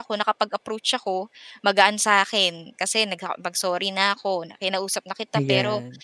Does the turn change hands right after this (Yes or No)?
No